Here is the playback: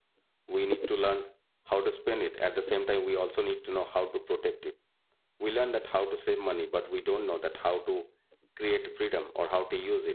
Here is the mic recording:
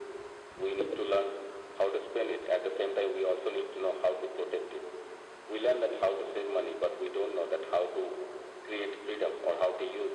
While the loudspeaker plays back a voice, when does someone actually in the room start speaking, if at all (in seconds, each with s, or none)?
none